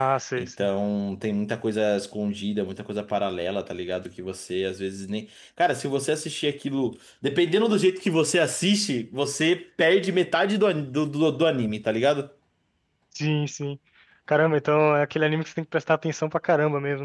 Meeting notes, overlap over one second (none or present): none